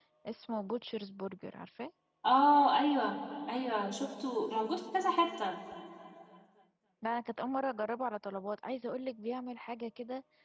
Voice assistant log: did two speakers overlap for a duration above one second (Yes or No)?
No